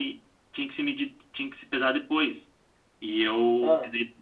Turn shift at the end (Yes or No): No